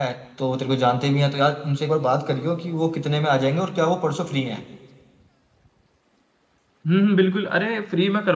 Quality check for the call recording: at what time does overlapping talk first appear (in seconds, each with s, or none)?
none